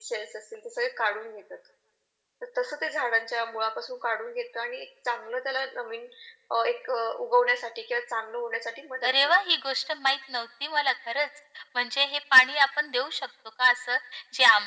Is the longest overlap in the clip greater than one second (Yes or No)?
No